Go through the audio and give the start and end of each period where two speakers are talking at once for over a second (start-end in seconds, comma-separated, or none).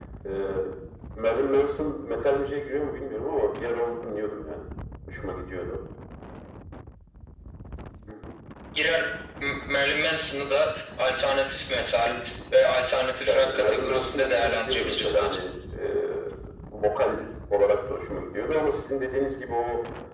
13.3-15.4